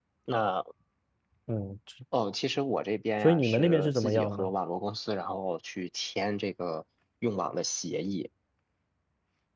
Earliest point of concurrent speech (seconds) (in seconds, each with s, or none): 3.2 s